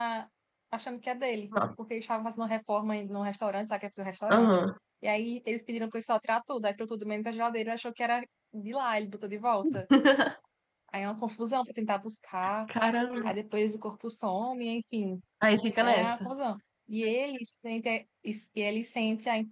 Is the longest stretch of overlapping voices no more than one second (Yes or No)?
Yes